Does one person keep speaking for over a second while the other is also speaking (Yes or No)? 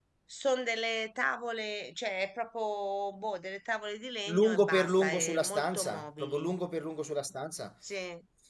Yes